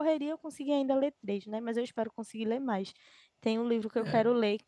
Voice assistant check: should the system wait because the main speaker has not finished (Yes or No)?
Yes